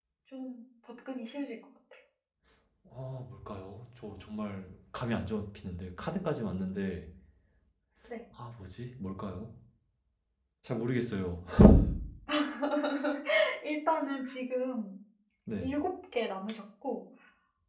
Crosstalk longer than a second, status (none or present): none